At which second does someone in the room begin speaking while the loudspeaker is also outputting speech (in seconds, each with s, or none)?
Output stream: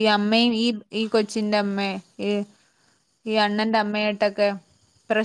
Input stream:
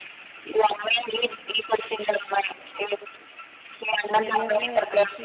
4.2 s